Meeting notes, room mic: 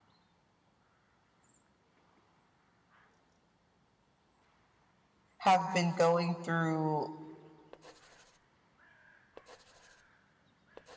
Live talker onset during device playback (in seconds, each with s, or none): 5.4 s